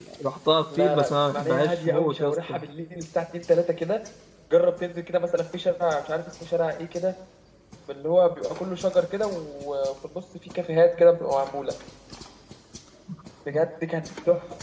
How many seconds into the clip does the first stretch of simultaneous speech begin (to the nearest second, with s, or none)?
1 s